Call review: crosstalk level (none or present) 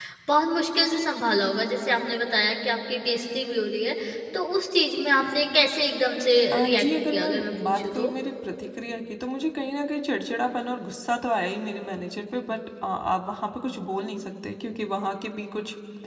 present